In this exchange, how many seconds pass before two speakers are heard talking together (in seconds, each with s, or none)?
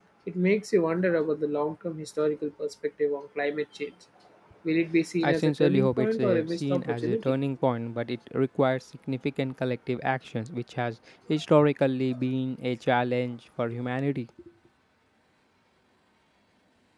5.2 s